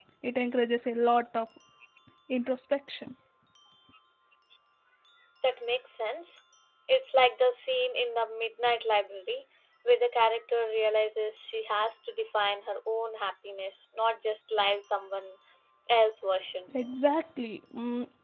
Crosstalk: none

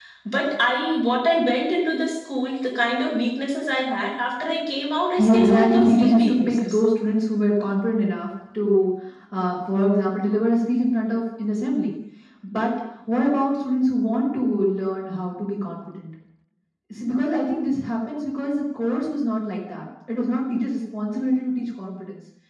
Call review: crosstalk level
present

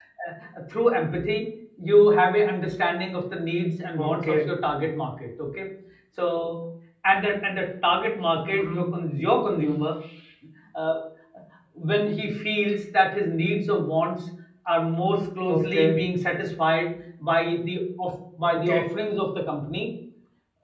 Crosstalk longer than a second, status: none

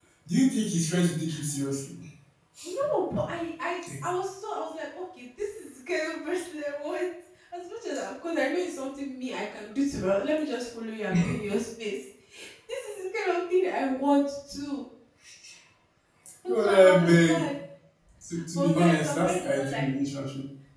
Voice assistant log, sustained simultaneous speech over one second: present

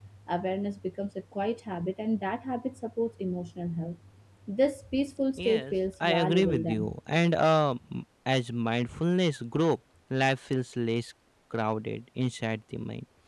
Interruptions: present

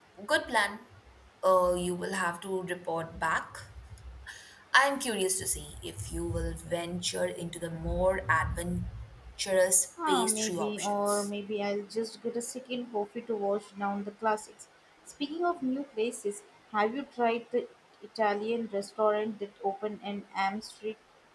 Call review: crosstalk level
present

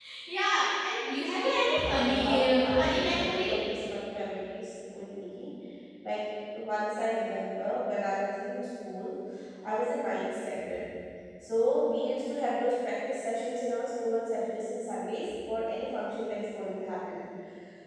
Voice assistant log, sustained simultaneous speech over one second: present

